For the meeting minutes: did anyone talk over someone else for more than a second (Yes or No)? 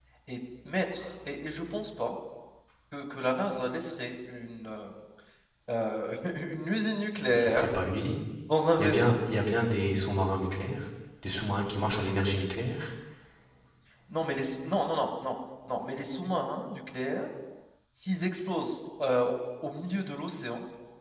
No